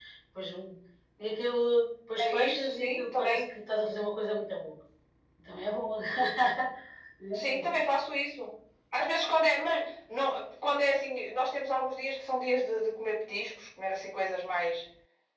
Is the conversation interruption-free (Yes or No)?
No